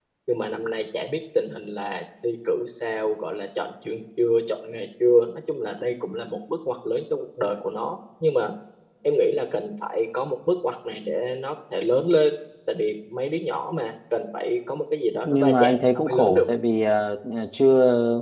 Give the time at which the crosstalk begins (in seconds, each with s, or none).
15.2 s